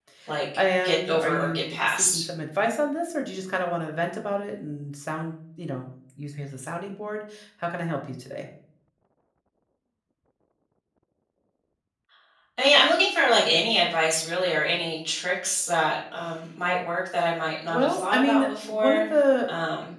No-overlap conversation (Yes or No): No